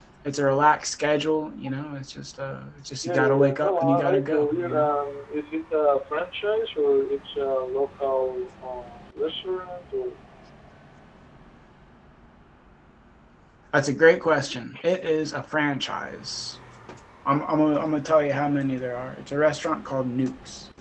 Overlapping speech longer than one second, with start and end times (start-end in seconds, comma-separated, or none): 3.0-4.9